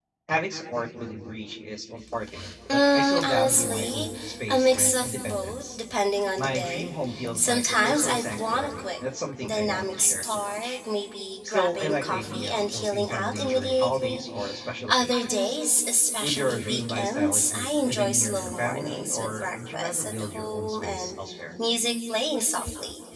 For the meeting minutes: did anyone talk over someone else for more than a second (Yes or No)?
Yes